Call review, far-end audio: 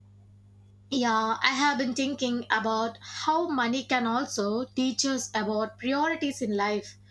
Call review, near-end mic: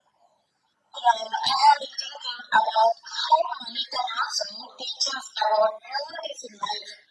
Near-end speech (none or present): none